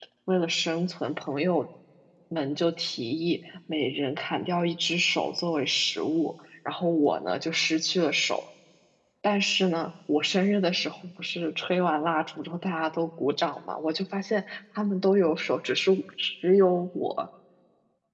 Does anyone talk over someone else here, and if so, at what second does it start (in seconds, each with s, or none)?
none